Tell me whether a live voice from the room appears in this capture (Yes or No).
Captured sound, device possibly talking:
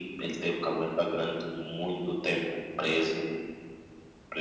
No